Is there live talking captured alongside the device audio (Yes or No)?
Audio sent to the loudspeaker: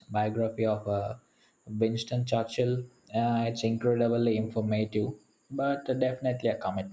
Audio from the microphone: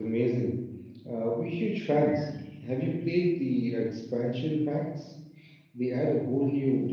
Yes